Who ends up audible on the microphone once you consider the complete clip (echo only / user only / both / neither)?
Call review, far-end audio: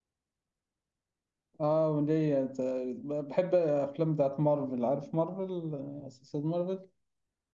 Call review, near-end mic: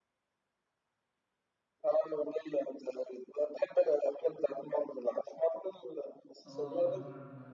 both